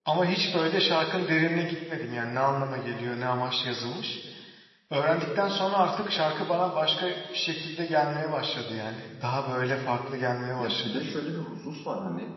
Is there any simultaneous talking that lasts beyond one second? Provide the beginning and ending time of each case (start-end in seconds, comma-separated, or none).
none